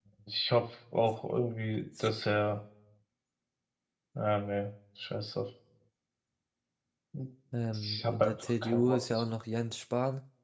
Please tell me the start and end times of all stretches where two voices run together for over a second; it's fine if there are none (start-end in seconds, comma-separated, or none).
7.7-9.1